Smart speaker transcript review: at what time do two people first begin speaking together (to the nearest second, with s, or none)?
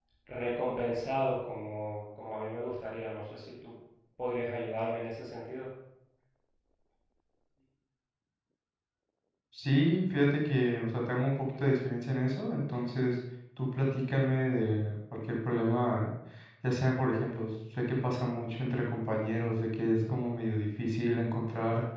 none